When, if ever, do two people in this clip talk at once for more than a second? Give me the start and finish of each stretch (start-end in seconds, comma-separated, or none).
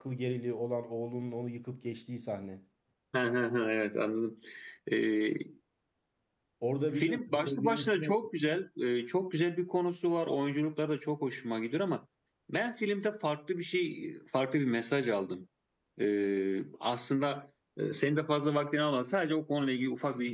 7.0-8.2